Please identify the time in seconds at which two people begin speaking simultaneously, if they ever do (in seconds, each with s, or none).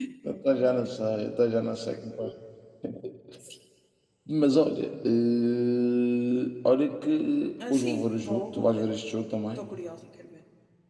7.6 s